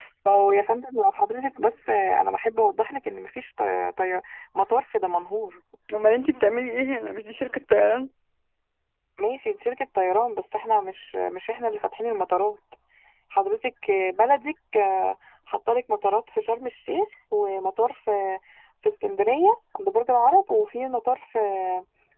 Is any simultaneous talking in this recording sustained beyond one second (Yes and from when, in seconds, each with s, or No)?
No